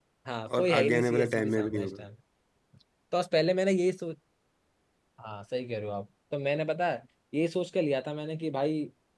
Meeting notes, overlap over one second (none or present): present